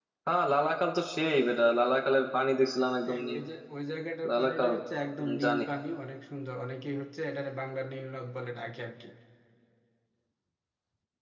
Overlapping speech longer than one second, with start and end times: none

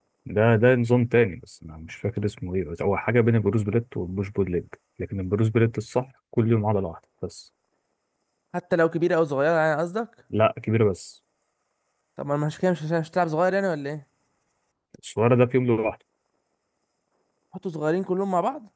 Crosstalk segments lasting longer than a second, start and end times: none

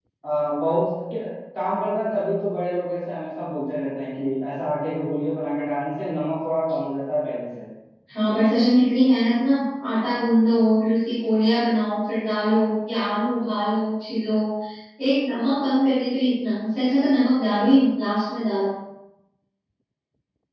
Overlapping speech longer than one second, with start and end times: none

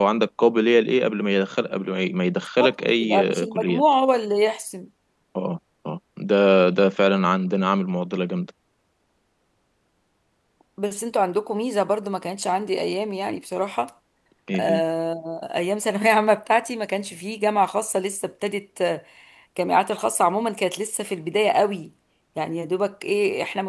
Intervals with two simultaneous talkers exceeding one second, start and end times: 2.6-3.8

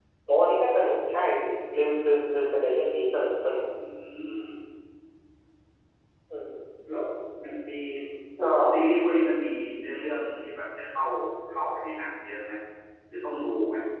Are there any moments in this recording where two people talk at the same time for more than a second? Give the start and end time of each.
none

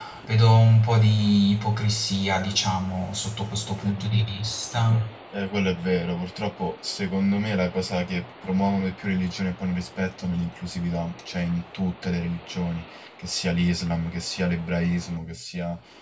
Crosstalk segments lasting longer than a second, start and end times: none

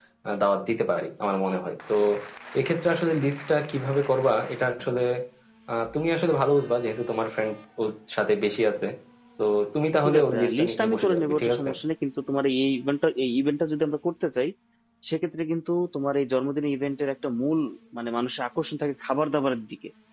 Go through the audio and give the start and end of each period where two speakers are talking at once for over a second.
10.0-11.6

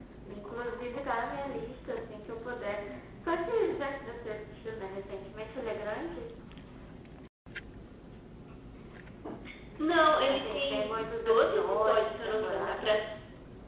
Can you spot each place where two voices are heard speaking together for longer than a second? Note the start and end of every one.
10.3-12.9

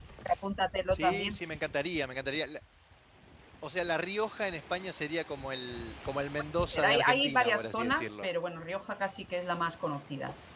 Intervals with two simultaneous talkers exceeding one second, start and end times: 6.6-8.3

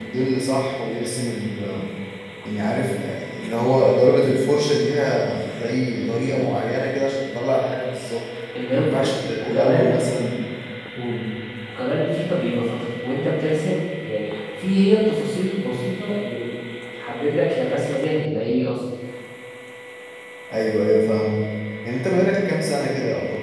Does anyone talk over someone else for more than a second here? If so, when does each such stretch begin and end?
8.7-10.0

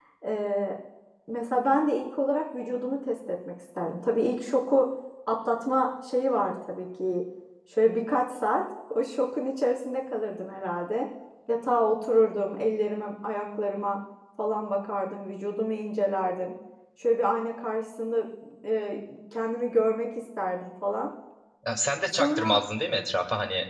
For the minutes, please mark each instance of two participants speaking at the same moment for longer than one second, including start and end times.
none

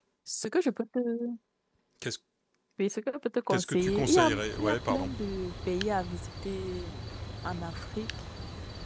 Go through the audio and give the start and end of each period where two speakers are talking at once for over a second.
3.5-5.1

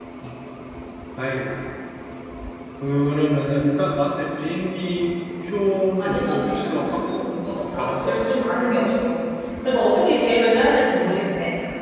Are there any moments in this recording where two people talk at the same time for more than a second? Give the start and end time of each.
6.0-7.2

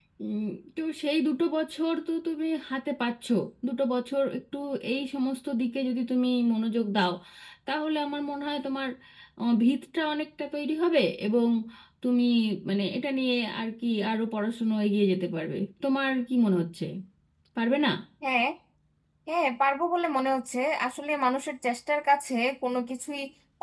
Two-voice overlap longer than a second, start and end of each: none

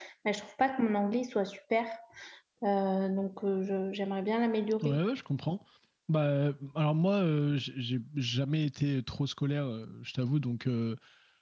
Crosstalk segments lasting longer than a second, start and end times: none

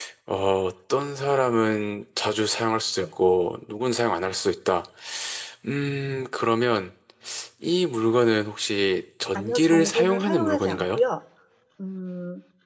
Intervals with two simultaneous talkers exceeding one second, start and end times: 9.3-11.0

